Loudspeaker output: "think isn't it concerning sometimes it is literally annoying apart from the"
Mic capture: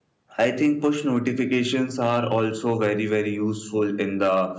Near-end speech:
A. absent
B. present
B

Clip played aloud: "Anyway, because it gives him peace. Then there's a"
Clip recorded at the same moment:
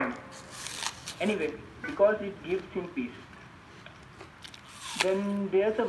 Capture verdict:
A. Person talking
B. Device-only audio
B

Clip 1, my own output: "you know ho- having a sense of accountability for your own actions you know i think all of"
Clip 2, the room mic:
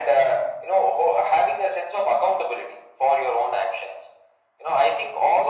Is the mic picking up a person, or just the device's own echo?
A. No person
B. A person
A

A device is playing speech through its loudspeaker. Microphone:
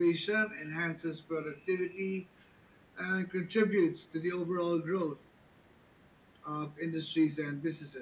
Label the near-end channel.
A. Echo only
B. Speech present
A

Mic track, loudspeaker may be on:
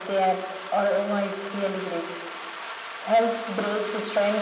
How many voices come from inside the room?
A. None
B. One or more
A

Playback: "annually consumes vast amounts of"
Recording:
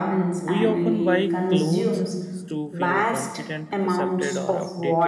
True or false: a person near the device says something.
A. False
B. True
B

